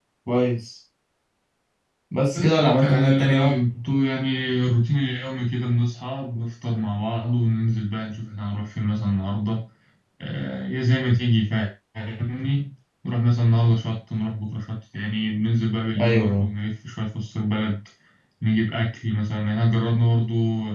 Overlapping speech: Yes, from 2.3 s

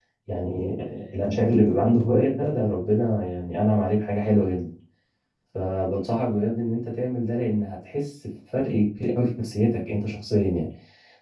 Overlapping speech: No

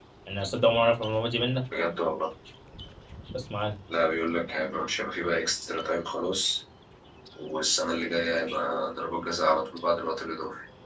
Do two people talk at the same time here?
No

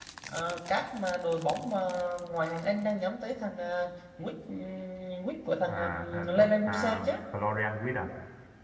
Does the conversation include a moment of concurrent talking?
Yes, from 5.7 s

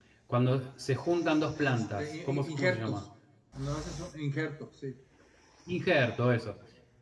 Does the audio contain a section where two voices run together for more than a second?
Yes, from 1.6 s

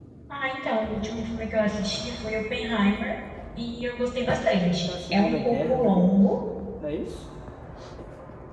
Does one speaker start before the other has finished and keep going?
Yes, from 4.3 s

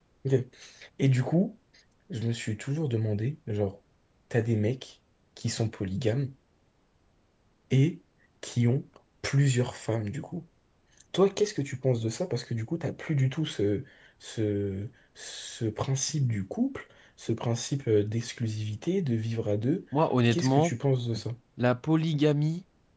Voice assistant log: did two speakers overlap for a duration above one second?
No

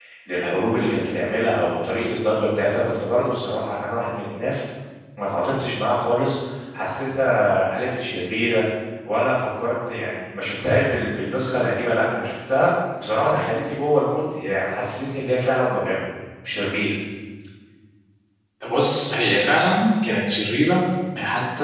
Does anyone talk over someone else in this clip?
No

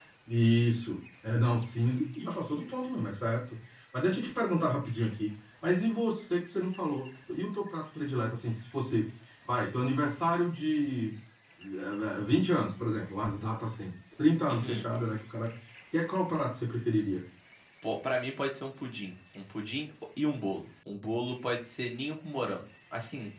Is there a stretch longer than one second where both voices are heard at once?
No

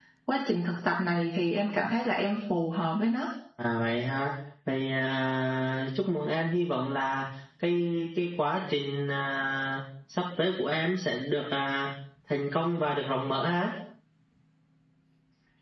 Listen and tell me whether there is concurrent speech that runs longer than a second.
No

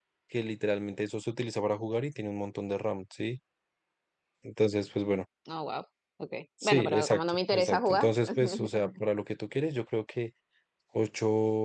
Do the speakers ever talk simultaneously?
Yes, from 6.6 s

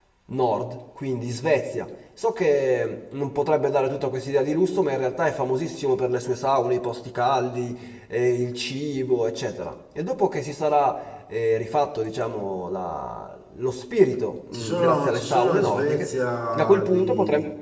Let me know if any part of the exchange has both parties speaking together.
Yes, from 14.5 s

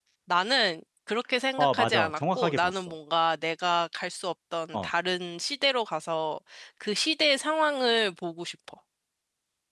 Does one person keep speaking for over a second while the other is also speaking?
Yes, from 1.6 s

